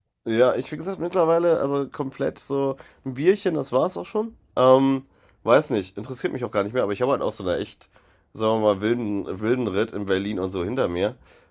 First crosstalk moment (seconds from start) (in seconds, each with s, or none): none